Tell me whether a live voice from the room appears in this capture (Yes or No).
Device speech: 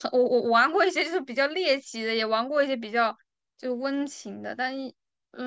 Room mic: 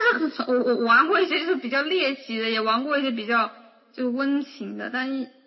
No